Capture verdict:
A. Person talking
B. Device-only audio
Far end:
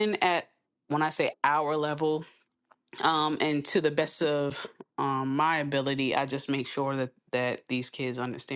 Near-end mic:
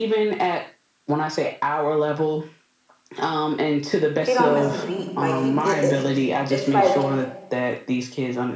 A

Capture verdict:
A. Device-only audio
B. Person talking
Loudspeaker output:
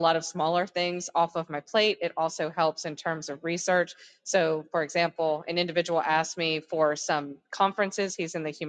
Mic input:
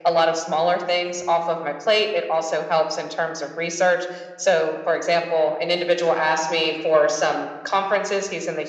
A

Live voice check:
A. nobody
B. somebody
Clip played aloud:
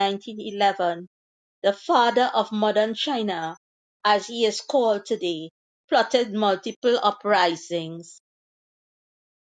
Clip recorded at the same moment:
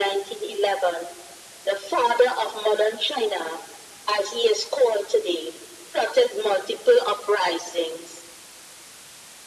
A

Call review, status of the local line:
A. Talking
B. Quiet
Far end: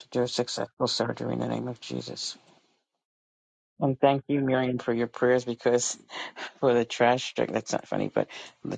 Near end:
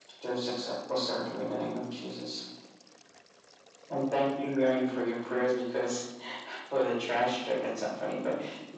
B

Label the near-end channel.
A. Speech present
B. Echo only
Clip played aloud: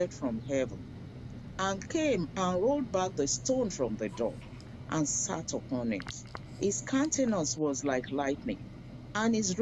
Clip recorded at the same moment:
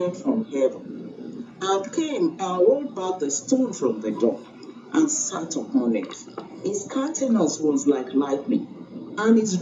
B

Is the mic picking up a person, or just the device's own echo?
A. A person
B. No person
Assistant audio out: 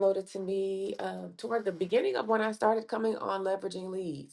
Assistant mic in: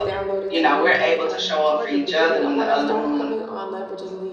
A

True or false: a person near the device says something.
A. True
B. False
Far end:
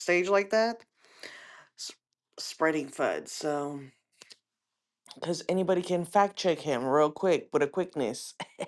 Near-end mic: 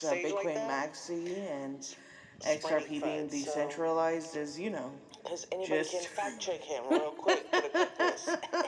A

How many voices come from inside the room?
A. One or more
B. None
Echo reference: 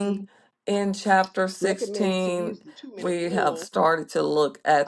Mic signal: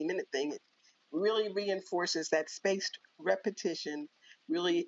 A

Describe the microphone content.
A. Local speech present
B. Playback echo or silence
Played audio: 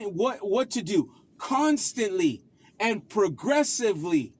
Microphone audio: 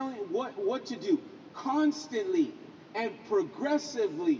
B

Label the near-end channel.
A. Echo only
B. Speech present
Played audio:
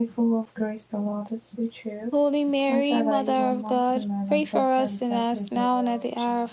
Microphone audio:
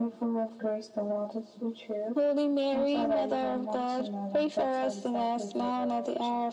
A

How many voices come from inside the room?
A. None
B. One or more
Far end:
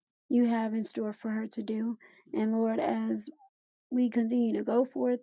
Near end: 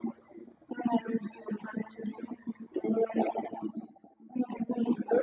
A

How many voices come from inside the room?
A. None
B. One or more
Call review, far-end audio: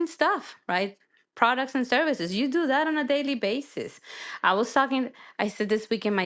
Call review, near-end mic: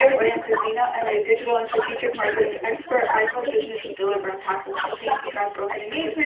B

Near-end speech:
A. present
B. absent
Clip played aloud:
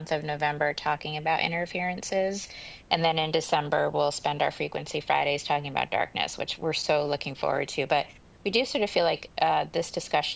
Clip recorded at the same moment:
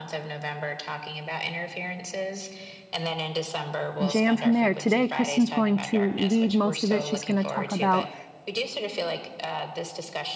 A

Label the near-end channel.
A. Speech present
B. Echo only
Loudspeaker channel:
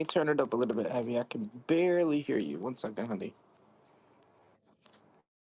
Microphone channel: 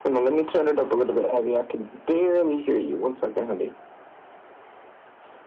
B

